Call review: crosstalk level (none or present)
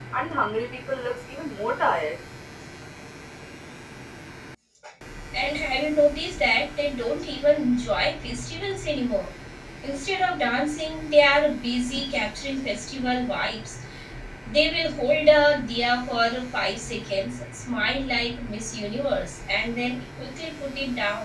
none